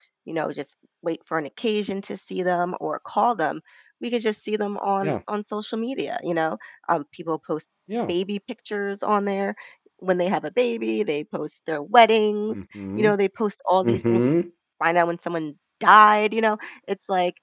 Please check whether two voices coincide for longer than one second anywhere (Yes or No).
No